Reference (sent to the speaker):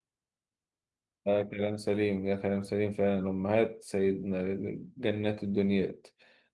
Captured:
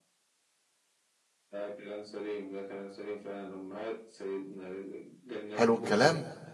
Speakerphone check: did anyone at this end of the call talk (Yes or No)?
Yes